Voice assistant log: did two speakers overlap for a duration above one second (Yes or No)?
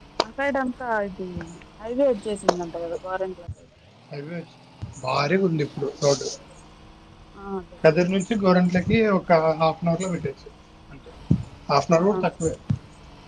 No